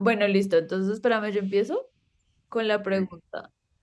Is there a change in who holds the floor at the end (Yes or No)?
No